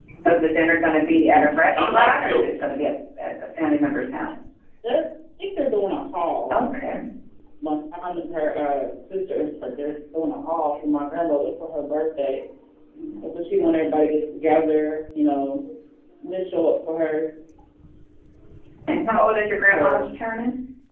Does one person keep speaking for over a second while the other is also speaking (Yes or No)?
Yes